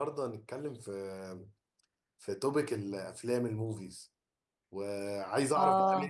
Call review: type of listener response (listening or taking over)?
listening